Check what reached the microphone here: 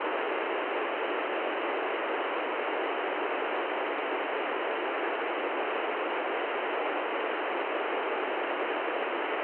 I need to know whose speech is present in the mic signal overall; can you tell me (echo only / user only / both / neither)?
neither